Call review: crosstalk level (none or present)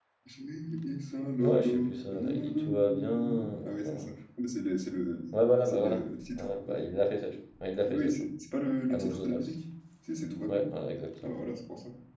present